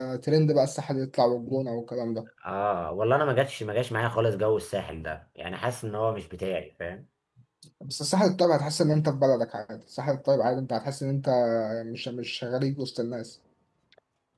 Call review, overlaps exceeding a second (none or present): none